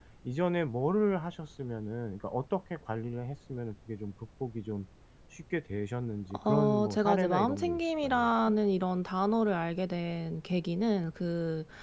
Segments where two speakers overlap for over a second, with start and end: 6.5-8.3

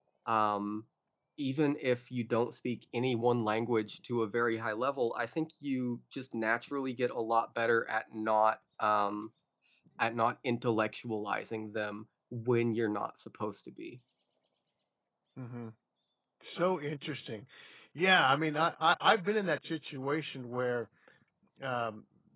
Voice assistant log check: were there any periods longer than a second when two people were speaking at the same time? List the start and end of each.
none

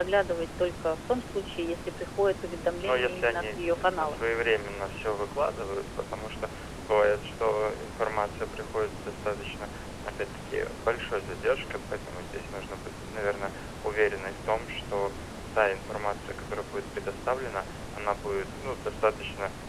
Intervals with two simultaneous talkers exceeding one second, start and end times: 2.8-4.2

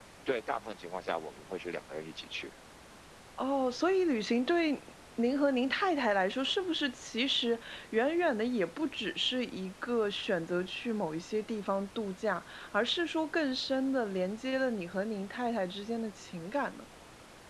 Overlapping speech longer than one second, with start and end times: none

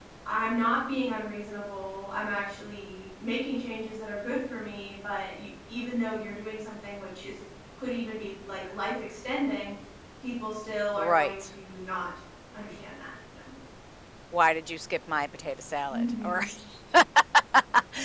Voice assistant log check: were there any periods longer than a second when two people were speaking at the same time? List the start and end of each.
none

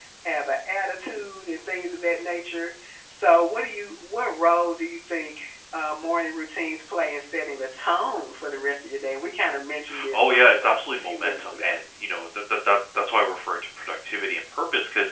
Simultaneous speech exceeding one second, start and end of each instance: 10.1-11.8

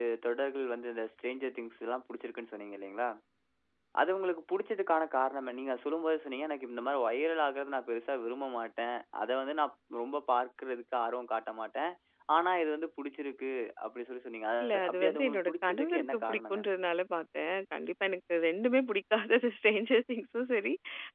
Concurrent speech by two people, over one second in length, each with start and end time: 14.6-16.6

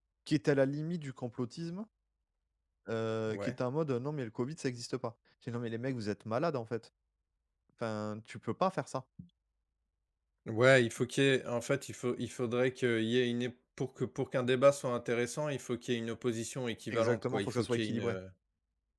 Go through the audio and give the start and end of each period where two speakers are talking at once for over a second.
16.9-18.2

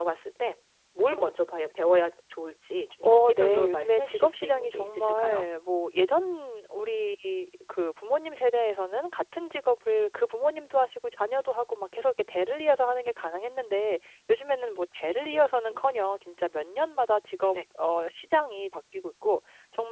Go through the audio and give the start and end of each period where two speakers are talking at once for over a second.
3.0-5.4

